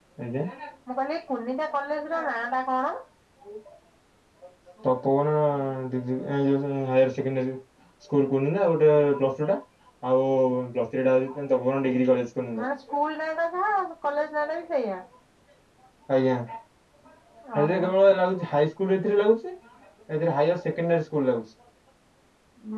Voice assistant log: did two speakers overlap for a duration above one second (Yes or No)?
No